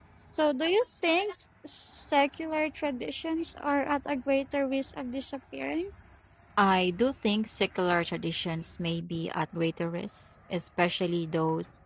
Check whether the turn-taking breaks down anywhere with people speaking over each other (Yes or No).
No